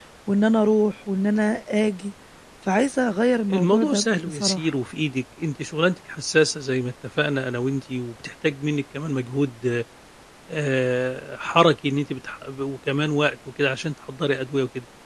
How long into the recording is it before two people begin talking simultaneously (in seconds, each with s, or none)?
3.5 s